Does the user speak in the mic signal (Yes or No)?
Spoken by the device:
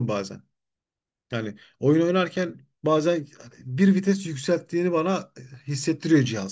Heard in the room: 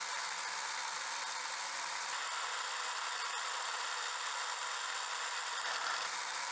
No